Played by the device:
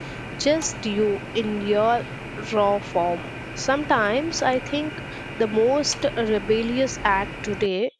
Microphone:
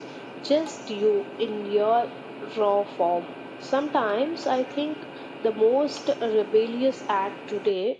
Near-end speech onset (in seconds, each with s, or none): none